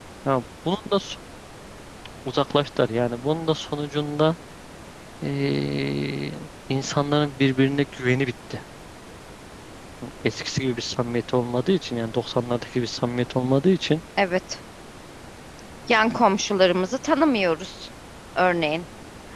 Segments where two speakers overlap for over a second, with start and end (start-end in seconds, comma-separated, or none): none